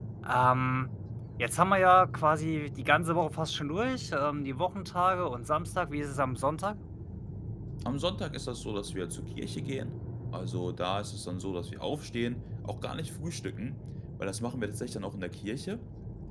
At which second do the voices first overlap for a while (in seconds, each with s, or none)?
none